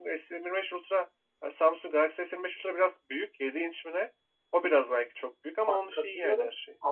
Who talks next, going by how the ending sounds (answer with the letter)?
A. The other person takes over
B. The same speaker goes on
A